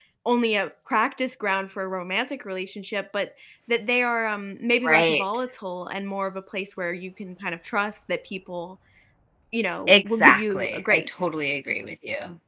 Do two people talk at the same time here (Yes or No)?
Yes